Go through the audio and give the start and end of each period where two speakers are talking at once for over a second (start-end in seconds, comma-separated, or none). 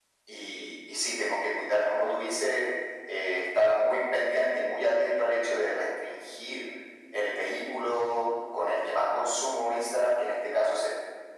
none